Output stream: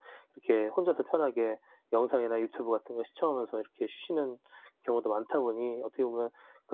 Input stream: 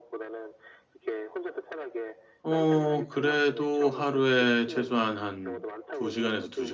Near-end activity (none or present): present